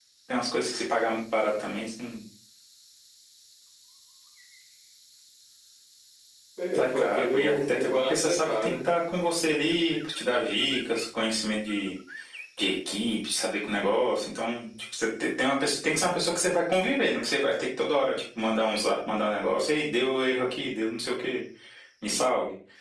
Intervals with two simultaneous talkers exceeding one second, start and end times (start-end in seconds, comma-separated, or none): 6.7-8.9